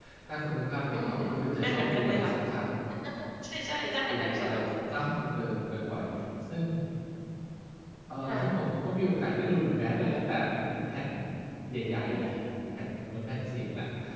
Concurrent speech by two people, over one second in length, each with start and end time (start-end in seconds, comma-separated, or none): 1.0-2.3